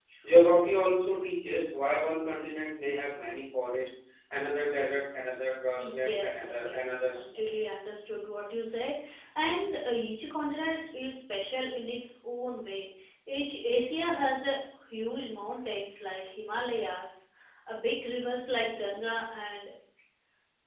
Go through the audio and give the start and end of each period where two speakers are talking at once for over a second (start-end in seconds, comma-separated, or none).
5.7-7.4